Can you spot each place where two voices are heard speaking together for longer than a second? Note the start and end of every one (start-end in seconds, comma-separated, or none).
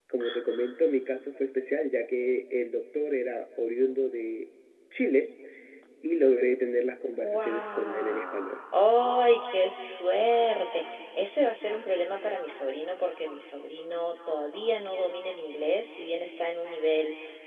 7.2-8.6